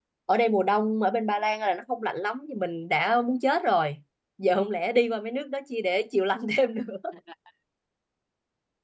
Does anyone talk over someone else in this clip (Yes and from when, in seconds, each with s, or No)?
No